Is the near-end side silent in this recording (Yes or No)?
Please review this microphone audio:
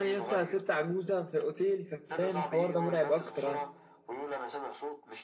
No